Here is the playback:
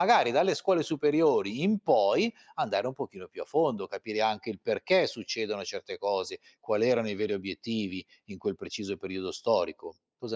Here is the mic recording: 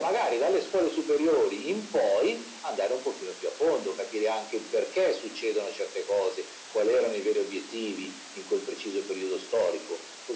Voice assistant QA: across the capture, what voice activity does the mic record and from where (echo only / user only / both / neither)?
echo only